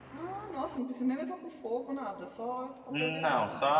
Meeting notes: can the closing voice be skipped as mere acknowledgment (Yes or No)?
No